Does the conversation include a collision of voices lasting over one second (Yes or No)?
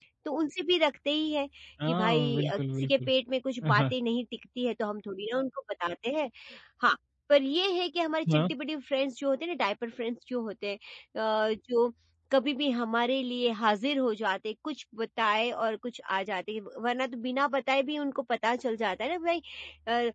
Yes